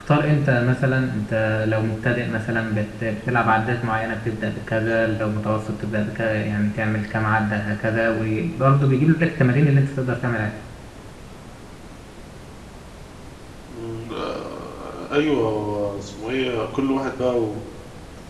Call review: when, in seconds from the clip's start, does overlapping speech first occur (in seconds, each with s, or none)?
none